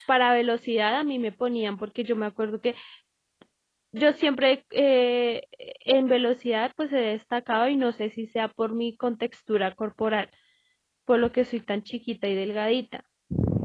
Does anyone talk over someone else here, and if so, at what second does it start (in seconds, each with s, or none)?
none